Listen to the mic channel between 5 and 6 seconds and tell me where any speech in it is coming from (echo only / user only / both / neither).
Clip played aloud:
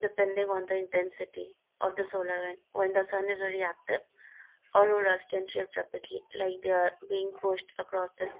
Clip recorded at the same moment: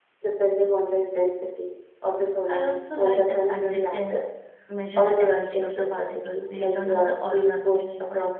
both